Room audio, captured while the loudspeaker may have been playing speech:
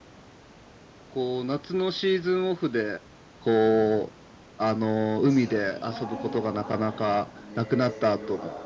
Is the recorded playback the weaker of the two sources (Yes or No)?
No